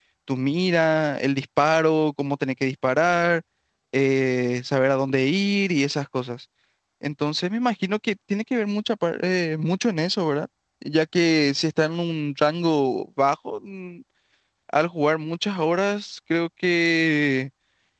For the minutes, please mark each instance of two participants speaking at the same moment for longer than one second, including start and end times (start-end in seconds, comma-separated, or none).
none